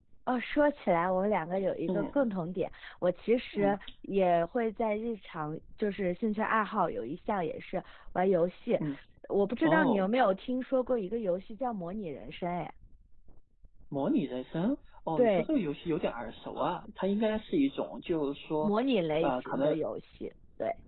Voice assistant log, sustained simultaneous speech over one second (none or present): none